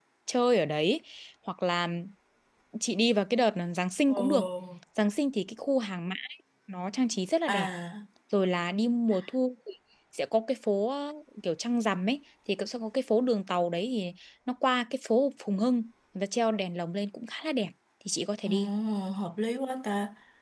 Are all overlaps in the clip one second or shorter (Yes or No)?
Yes